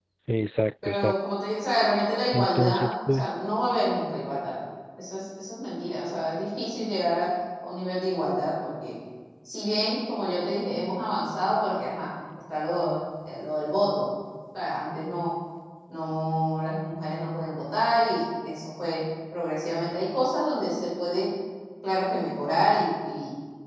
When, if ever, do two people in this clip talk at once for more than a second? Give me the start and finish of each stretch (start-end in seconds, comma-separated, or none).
2.3-3.5